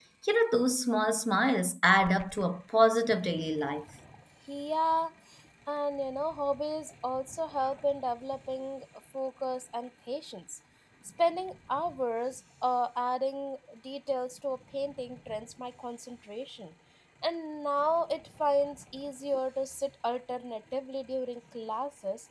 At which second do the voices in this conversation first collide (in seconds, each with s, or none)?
none